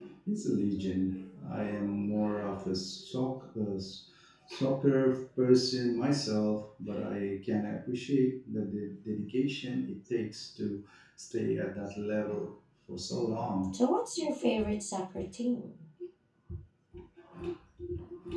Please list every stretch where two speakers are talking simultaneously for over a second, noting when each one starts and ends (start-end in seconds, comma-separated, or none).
none